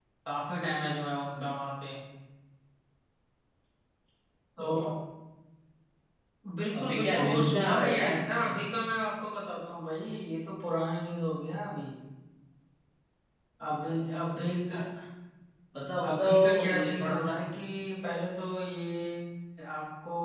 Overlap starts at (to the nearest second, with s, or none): 7 s